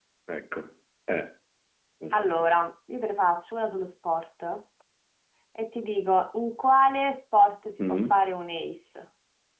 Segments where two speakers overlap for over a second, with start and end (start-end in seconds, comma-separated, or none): none